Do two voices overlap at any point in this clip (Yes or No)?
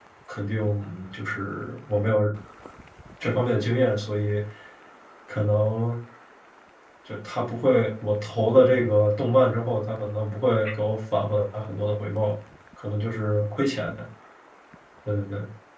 No